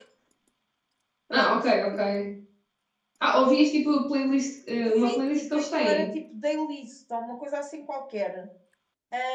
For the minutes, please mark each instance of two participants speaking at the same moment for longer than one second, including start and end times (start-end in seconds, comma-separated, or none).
4.8-6.1